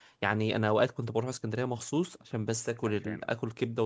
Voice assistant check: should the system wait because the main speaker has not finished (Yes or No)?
Yes